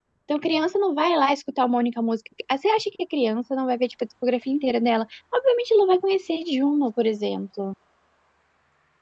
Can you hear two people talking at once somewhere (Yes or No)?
No